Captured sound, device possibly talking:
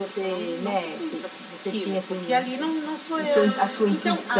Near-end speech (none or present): present